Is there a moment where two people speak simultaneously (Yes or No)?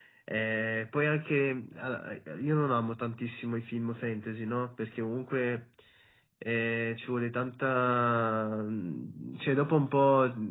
No